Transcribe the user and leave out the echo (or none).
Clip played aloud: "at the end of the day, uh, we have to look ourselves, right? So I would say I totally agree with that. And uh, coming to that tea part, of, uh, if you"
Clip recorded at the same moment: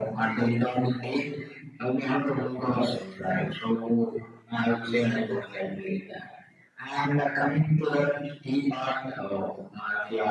none